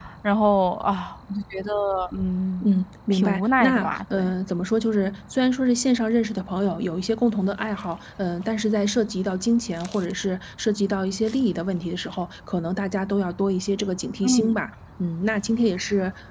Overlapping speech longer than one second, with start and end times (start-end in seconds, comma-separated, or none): 3.1-4.3